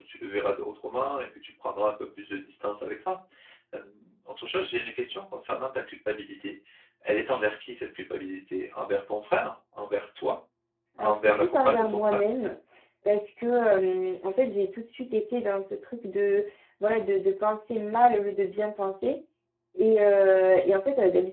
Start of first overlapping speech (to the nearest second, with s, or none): 11 s